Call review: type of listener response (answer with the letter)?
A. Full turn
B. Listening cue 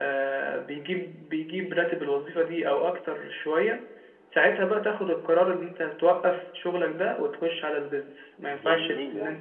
A